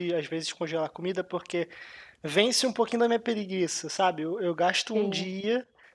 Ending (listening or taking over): listening